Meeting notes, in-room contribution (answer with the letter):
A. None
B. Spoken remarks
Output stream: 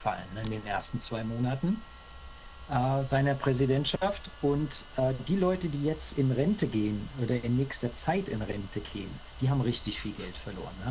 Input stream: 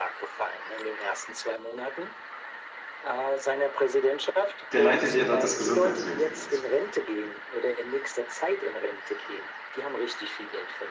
B